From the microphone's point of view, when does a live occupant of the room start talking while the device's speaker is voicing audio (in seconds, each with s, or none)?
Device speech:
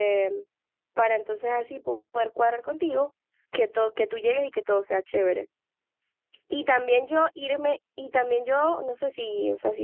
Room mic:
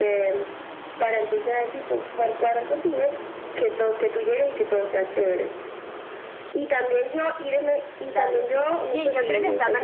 8.1 s